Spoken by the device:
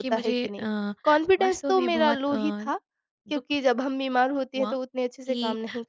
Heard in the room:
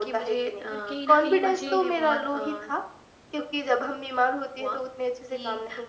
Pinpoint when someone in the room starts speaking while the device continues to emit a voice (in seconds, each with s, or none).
0.7 s